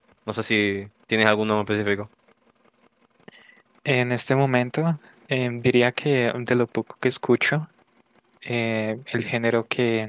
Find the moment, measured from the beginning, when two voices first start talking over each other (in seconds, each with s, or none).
none